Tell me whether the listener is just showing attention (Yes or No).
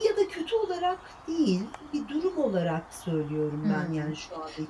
No